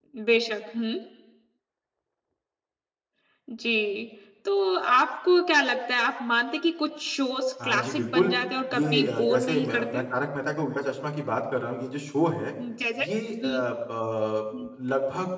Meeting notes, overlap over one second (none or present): present